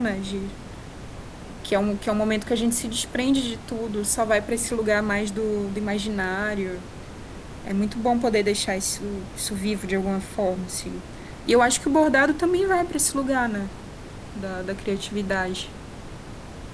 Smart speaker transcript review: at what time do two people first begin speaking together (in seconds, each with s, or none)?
none